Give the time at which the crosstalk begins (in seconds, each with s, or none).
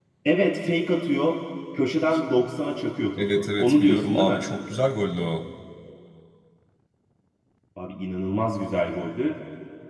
3.2 s